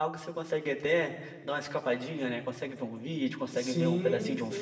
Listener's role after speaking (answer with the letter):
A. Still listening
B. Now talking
B